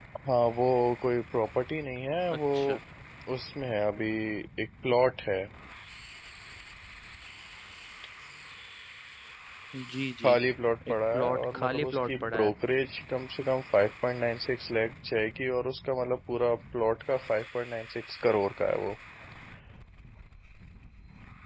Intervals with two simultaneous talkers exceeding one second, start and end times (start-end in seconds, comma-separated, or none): 10.9-12.5